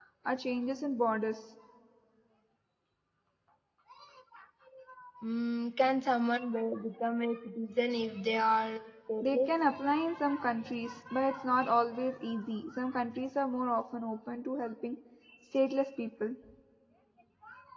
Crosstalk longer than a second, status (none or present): none